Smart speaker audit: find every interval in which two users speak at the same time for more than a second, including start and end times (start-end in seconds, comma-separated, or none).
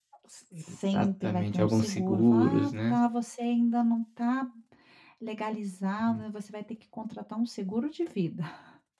0.9-3.0